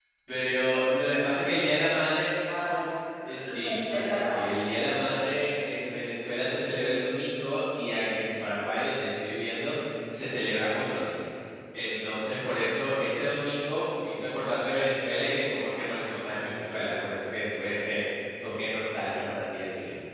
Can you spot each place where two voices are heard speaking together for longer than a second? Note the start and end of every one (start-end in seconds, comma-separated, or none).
3.2-4.5